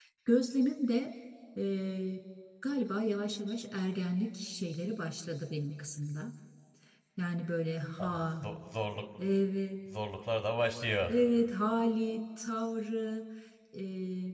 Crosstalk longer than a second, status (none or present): none